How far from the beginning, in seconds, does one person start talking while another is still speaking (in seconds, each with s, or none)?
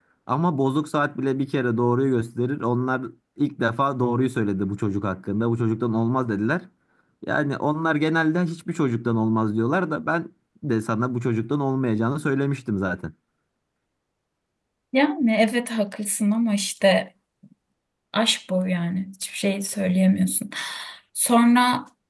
none